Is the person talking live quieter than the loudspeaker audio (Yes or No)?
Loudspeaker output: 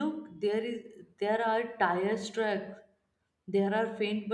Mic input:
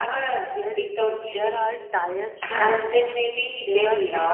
No